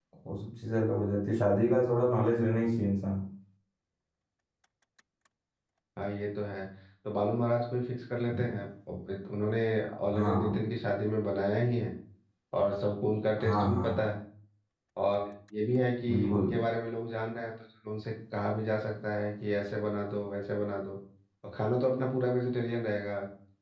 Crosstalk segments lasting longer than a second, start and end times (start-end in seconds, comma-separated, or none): none